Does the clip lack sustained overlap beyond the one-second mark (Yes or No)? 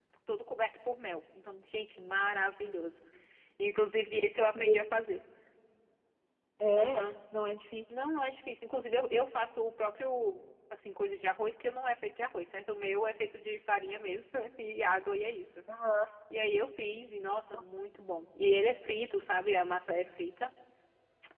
Yes